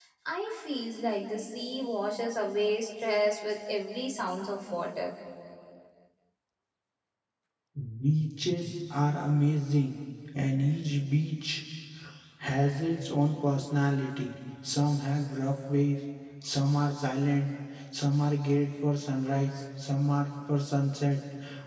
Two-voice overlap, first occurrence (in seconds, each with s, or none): none